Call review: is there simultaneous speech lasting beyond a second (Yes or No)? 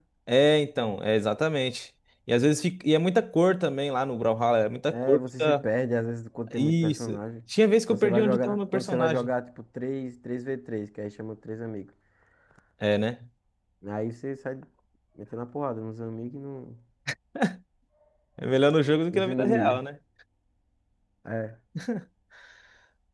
Yes